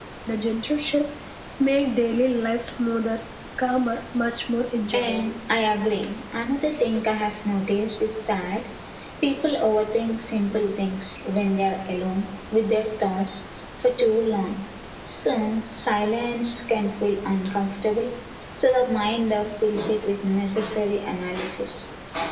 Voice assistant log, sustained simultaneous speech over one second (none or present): none